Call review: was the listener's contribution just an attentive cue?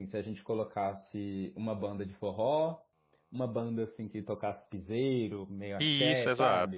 No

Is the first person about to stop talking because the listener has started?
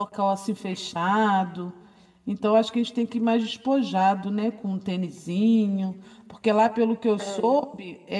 No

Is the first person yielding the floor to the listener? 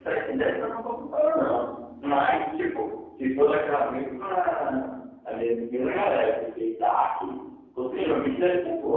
No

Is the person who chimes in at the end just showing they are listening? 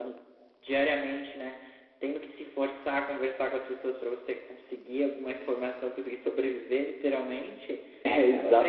No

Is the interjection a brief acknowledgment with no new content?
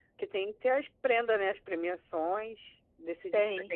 Yes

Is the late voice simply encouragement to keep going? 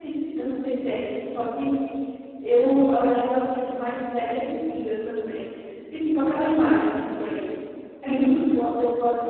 Yes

